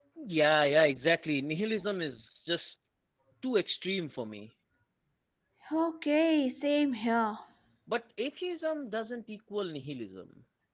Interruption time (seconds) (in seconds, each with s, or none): none